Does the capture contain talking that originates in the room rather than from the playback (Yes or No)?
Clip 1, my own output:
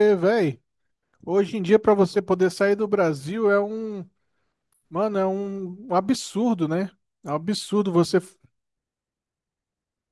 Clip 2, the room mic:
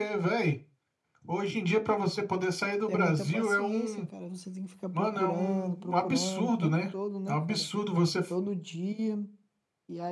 Yes